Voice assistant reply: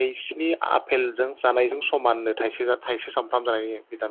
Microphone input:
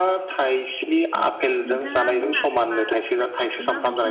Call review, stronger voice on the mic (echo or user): echo